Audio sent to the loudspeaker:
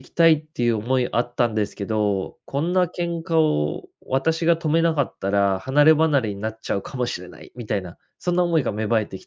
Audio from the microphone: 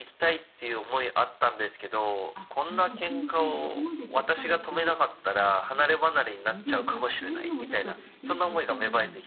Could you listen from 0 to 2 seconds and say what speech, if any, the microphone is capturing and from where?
echo only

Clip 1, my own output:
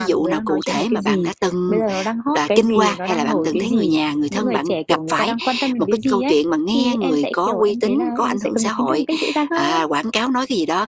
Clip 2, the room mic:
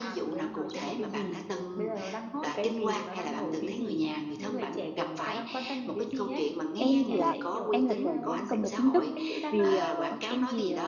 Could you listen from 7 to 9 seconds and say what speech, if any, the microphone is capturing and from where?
both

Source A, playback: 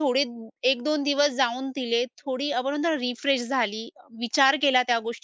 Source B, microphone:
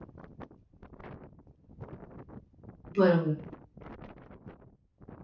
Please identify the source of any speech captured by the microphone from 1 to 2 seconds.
neither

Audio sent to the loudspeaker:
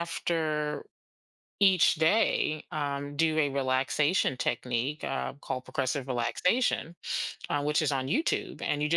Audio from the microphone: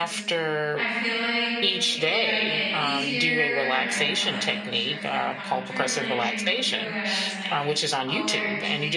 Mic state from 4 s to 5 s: both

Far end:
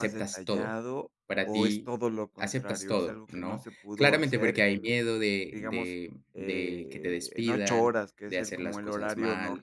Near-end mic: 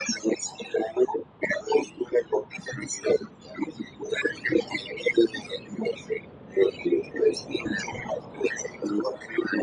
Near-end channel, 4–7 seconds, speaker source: echo only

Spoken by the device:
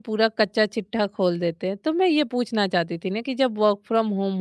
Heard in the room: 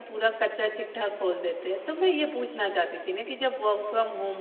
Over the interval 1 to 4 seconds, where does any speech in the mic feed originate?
echo only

